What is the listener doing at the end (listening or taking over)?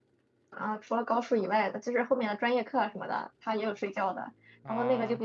listening